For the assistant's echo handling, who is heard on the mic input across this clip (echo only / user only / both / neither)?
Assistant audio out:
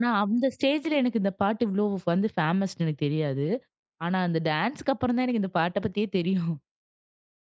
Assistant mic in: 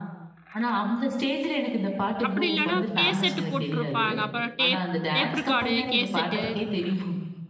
both